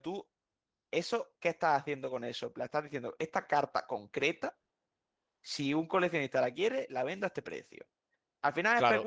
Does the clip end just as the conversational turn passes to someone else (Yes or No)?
No